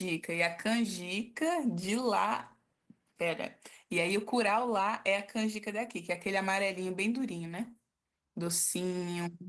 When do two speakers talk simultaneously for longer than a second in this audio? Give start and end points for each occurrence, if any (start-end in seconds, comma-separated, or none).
none